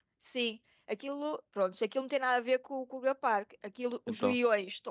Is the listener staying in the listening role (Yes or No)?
Yes